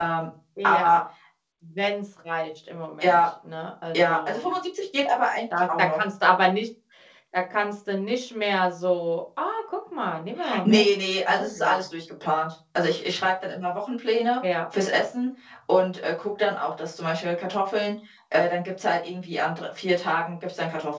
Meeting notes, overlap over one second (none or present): none